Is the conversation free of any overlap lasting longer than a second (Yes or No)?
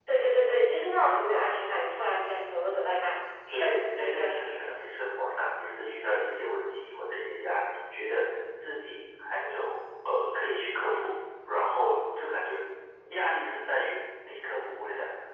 No